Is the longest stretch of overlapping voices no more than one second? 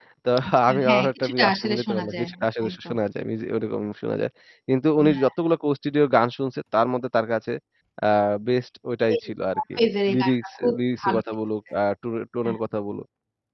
No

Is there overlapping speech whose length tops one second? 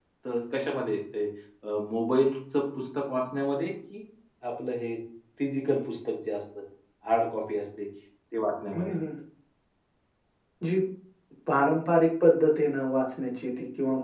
No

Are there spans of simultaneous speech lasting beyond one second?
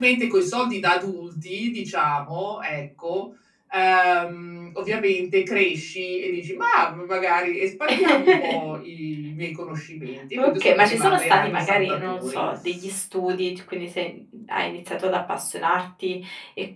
Yes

